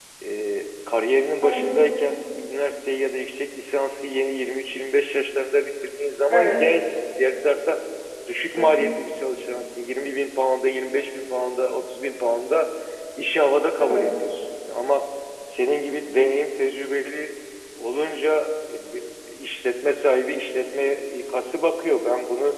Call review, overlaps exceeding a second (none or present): none